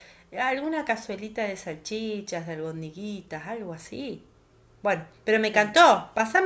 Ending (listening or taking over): listening